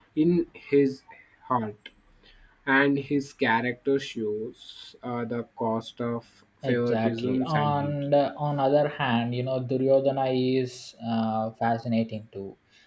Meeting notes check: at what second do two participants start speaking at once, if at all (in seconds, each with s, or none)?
6.6 s